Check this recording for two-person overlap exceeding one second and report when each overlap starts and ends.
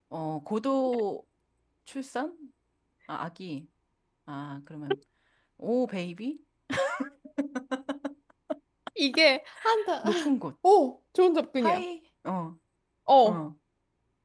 none

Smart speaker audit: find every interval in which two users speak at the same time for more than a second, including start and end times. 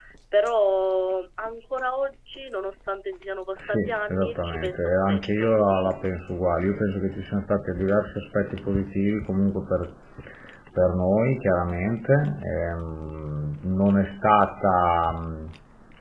3.6-5.9

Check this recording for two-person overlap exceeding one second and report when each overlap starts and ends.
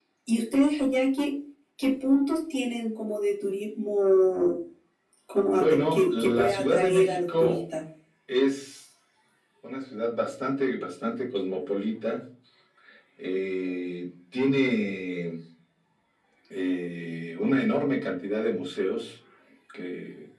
5.5-7.6

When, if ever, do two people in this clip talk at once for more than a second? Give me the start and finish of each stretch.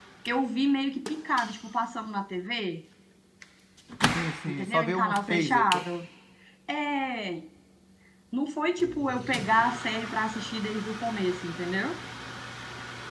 4.5-5.8

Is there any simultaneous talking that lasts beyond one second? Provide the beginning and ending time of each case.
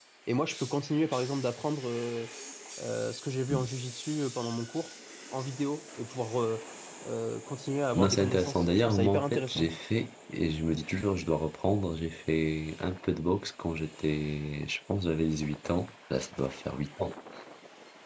7.9-9.7

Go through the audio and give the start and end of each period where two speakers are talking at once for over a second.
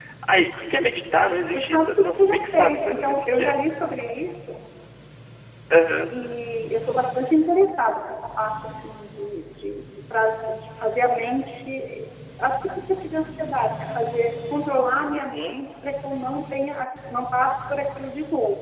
1.5-3.6

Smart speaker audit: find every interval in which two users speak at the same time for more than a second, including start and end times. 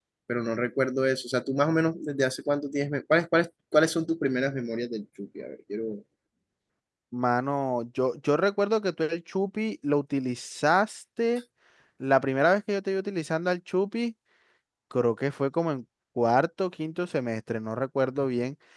none

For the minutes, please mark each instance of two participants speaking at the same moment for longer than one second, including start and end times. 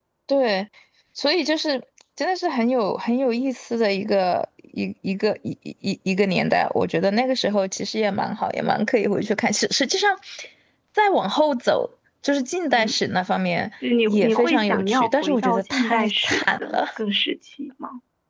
14.1-16.9

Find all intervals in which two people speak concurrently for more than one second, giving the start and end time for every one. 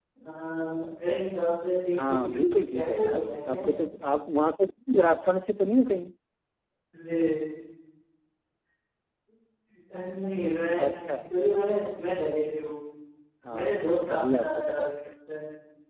2.0-3.7, 13.6-14.9

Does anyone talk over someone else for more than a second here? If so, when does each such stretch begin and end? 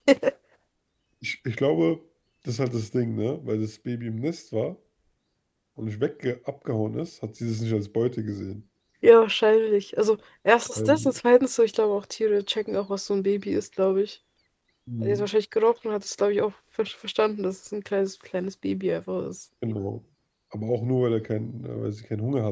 none

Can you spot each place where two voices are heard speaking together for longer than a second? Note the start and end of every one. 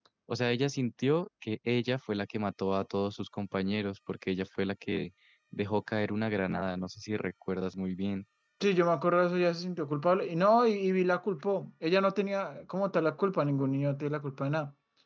none

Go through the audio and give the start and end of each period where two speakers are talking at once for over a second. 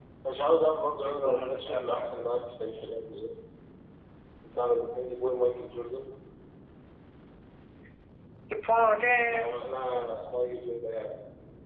1.0-2.2

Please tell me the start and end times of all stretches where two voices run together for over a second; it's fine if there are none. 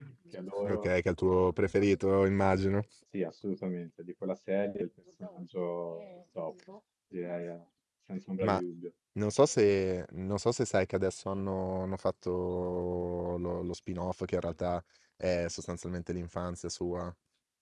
none

